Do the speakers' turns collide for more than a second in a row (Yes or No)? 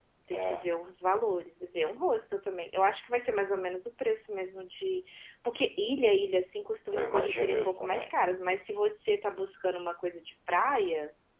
Yes